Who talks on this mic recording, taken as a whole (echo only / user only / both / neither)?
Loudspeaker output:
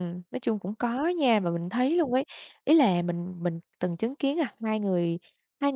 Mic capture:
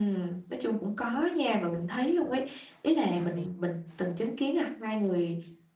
both